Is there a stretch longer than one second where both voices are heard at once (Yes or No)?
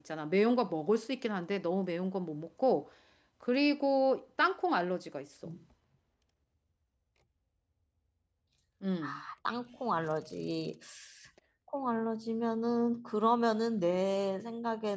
No